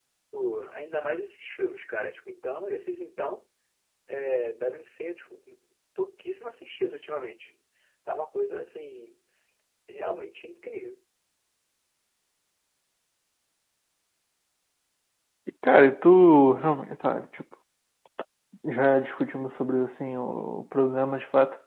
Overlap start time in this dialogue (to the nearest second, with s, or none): none